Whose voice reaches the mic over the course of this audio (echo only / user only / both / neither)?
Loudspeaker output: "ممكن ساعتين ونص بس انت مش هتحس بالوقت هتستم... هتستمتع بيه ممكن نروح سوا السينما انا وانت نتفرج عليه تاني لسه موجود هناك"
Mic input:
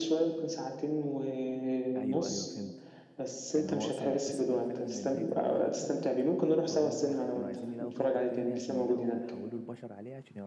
both